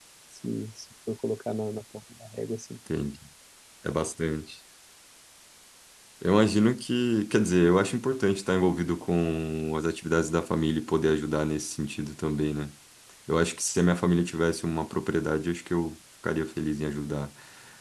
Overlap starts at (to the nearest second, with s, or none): none